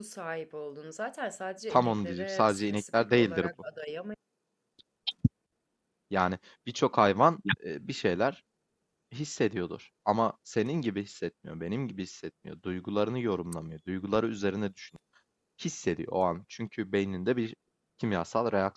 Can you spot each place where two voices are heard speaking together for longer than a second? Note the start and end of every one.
1.7-3.5

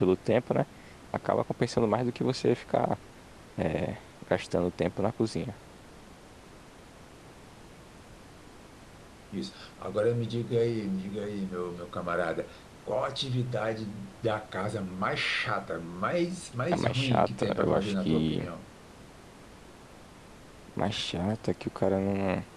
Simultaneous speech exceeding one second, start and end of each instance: 16.7-18.4

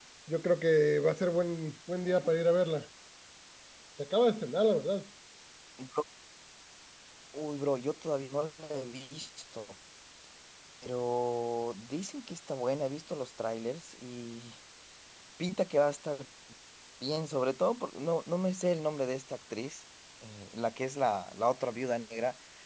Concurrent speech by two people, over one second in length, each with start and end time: none

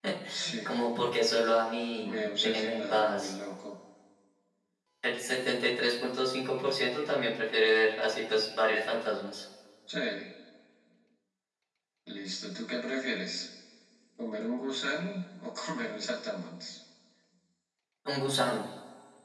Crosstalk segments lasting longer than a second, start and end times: 2.0-3.3

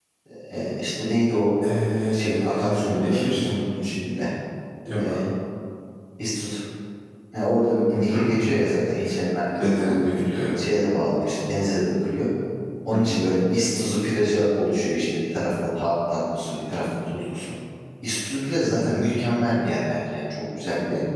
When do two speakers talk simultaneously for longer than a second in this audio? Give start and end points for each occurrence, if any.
2.1-3.5

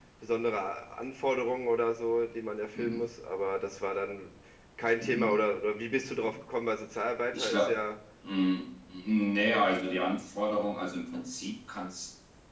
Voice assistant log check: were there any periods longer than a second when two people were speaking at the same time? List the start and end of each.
none

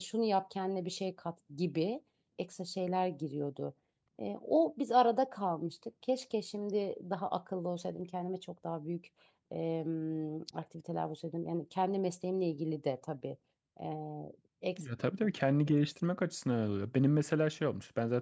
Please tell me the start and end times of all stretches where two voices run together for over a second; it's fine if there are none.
none

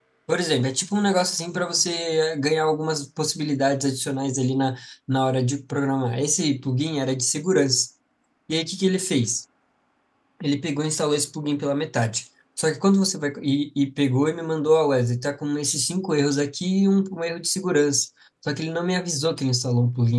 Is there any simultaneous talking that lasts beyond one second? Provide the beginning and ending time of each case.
none

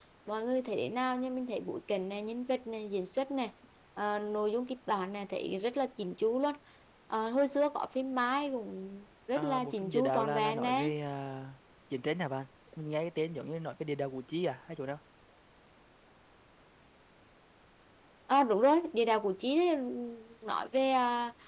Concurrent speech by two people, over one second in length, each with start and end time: 9.3-10.9

